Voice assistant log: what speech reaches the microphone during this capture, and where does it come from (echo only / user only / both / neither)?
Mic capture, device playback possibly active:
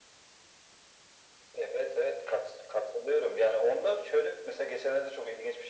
echo only